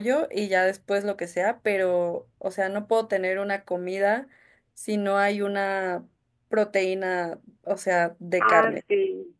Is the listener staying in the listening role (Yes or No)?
No